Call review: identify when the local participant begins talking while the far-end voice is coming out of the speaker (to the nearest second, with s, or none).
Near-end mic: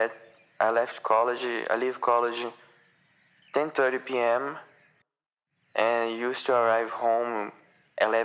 none